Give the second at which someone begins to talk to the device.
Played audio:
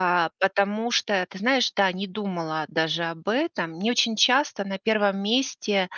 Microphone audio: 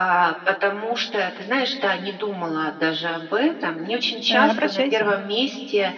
4.3 s

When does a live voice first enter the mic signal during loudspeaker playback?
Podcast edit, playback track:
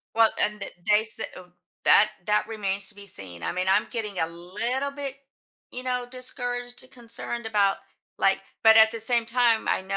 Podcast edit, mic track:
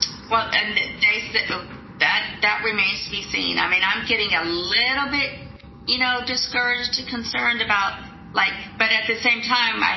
none

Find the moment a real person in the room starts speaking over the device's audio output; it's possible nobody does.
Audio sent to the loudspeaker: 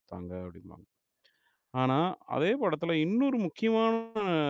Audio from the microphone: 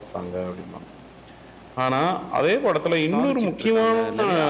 3.1 s

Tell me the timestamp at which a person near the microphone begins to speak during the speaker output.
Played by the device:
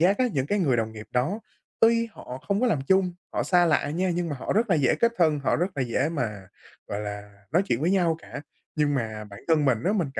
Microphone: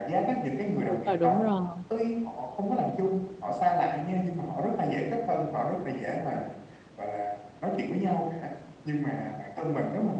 0.7 s

